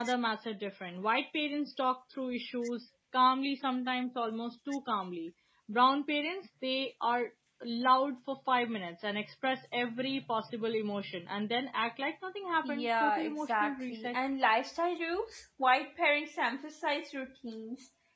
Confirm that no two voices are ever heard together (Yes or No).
No